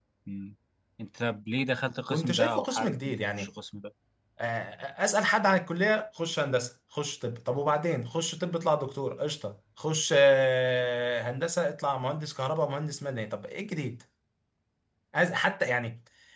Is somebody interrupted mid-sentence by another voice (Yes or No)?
Yes